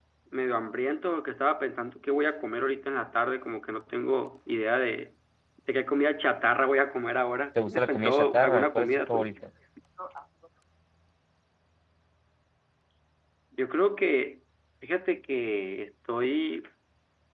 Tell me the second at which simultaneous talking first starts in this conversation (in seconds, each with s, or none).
7.5 s